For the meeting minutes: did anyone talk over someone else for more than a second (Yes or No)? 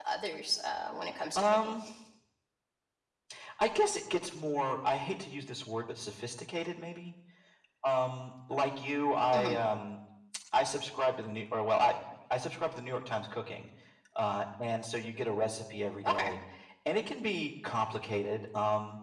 No